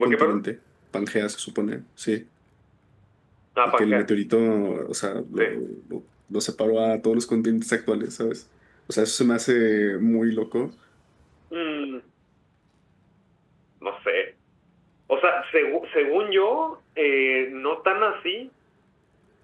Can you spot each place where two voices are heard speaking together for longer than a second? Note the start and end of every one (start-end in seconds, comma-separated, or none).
none